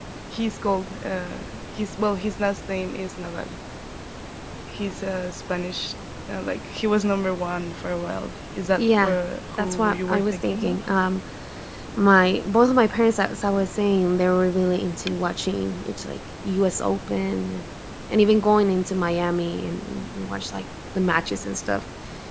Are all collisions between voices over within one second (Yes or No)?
No